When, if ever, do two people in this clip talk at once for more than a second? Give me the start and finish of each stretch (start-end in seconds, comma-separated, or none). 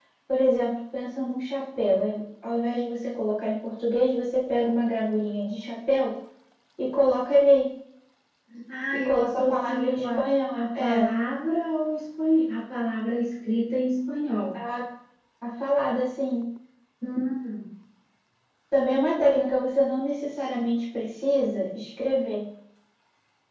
9.0-11.1